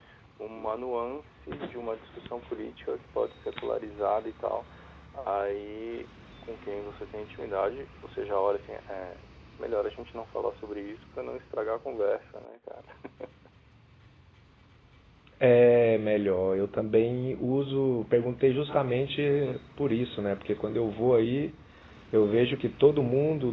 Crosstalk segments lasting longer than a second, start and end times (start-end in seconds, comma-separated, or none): none